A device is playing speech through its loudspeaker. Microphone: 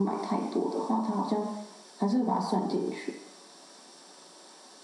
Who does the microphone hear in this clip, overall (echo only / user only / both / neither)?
echo only